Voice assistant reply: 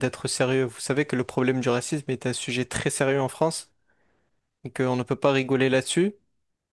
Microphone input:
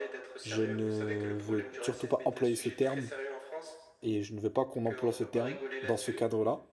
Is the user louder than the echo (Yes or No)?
Yes